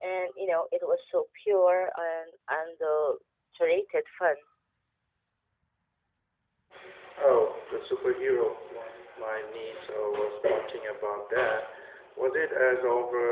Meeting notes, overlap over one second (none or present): none